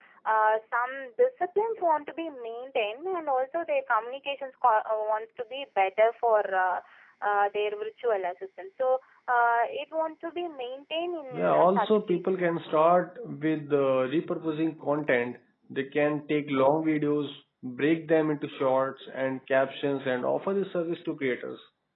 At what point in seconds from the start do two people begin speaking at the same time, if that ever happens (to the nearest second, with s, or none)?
11 s